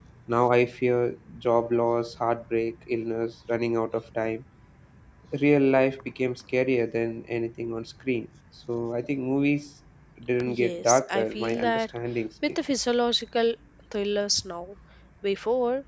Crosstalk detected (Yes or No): Yes